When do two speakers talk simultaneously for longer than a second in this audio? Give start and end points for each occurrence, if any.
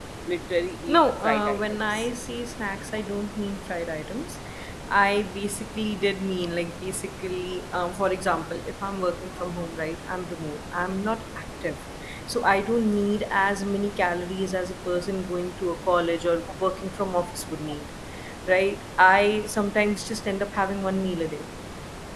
0.9-2.1

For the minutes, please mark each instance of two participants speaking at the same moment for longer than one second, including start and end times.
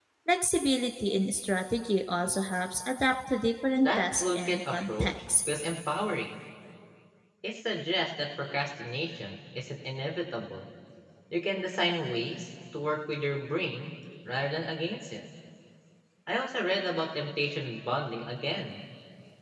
3.8-5.2

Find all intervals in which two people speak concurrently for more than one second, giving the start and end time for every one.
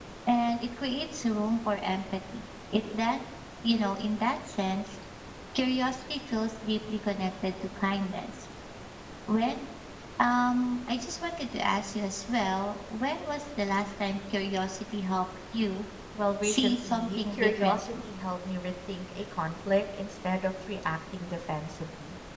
16.4-17.9

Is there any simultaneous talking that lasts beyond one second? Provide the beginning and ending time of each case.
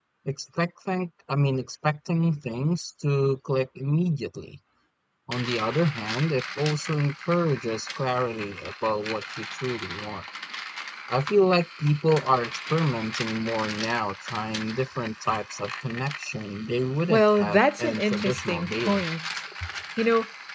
17.1-19.0

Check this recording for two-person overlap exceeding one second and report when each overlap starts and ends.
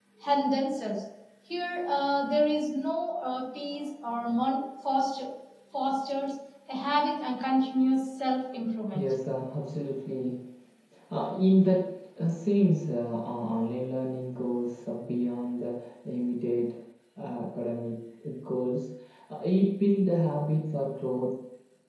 none

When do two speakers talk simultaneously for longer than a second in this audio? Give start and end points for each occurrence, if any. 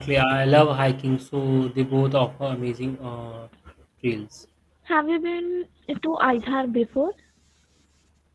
none

